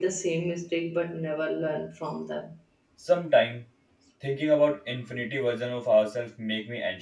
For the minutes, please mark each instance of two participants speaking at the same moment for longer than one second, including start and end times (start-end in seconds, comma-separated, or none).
none